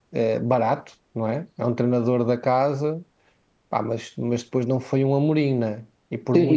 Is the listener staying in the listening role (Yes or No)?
No